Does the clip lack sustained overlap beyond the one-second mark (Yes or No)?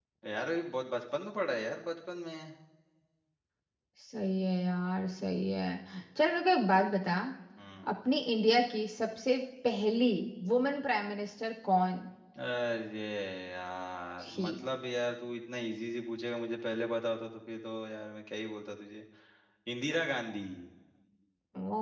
Yes